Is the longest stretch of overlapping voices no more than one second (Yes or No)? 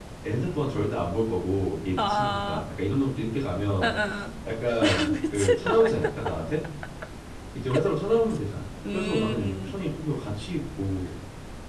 No